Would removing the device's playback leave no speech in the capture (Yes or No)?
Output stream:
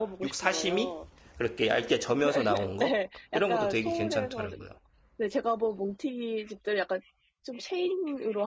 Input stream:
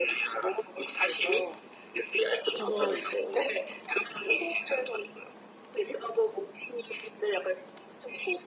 No